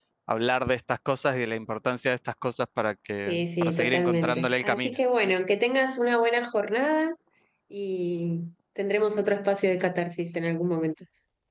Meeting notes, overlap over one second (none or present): present